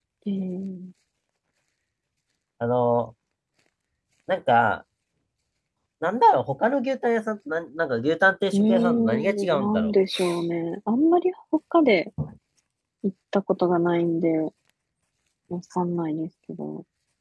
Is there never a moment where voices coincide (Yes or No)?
No